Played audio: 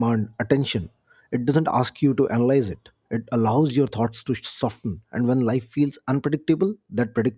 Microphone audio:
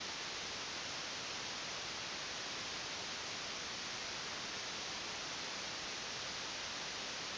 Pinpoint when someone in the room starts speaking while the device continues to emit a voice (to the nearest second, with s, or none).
none